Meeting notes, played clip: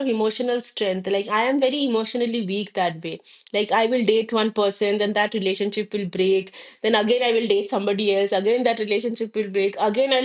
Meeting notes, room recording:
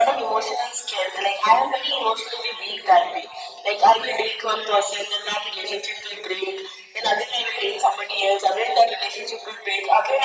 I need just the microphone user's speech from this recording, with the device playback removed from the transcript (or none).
none